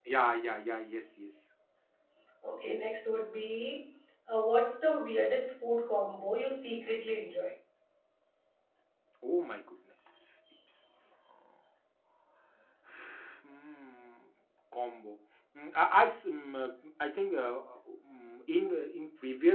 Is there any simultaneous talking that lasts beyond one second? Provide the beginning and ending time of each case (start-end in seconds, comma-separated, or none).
none